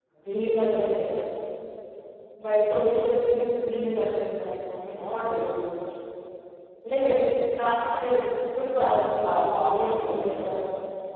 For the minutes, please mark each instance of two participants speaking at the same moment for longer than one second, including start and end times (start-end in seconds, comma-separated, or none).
8.7-10.5